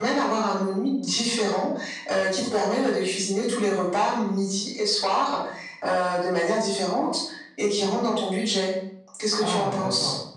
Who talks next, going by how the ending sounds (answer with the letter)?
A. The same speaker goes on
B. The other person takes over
B